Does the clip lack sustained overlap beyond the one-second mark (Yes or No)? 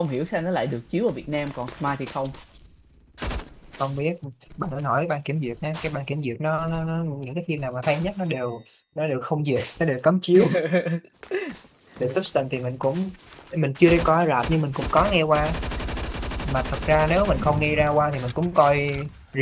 Yes